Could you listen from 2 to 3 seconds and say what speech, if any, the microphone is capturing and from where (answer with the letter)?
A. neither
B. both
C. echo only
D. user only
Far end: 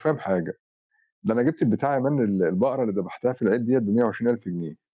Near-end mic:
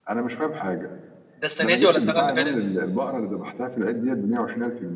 B